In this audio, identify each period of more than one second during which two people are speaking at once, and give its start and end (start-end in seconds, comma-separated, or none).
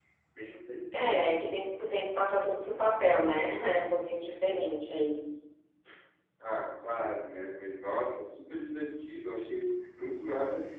none